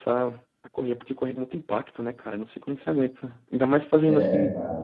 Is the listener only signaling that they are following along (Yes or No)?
Yes